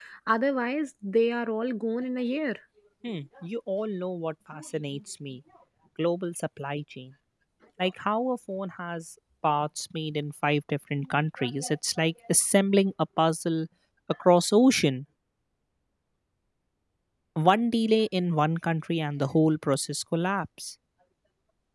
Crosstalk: none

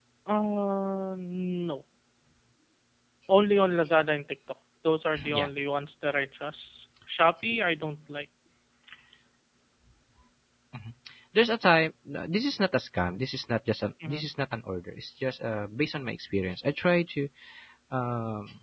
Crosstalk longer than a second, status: none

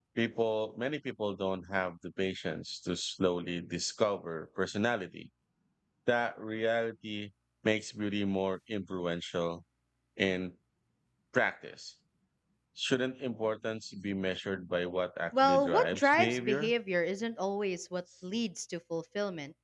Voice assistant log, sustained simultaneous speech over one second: present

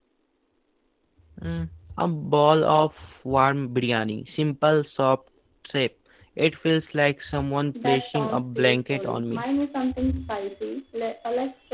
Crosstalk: present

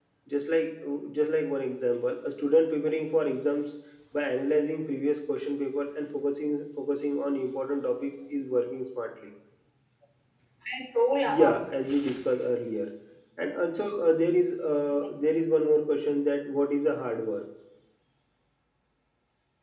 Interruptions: present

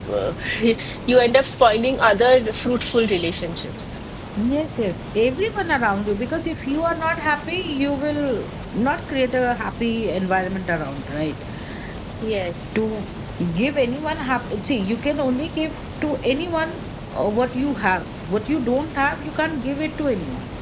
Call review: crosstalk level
none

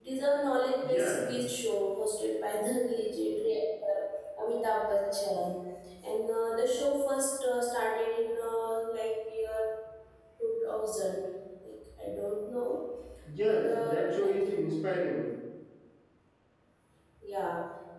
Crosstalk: present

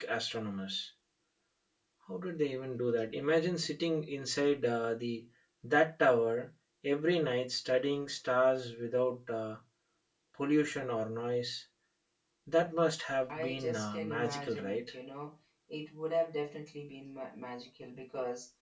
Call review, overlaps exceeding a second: present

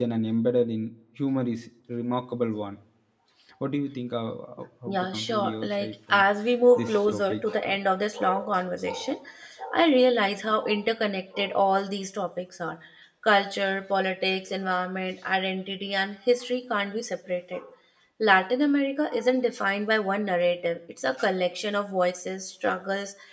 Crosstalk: present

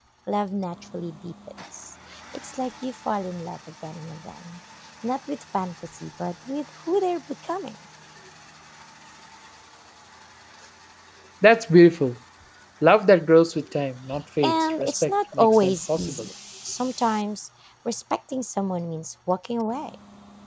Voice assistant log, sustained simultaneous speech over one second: present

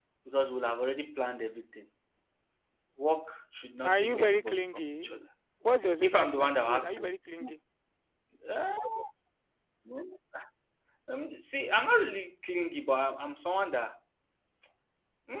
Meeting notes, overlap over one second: present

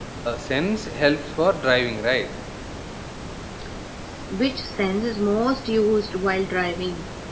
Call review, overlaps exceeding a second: none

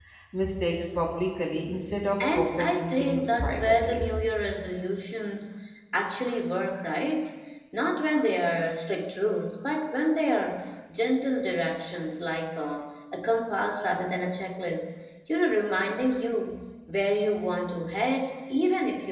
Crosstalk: present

